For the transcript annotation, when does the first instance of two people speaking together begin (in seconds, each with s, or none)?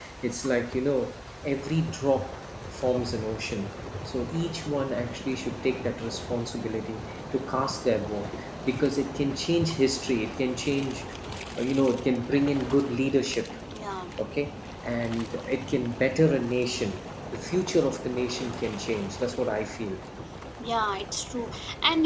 none